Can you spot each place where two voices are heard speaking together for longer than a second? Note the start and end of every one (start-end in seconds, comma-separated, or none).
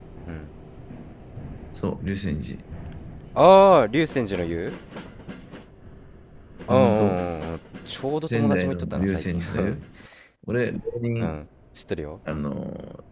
8.3-9.8